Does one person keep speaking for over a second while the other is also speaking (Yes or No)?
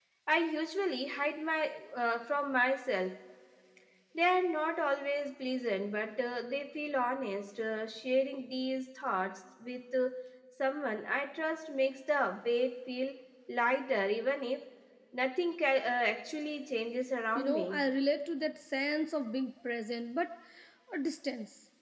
No